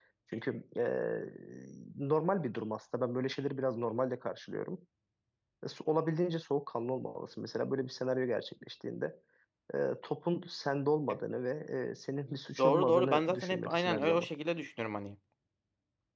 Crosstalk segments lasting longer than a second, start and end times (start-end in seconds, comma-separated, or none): 12.6-14.3